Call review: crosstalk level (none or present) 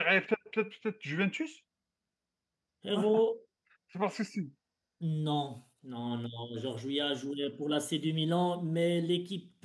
none